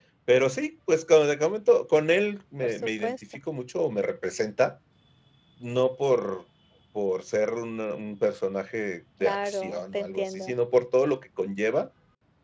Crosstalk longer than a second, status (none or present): present